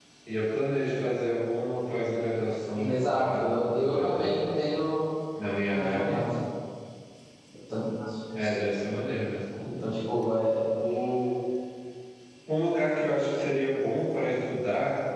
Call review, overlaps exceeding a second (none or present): present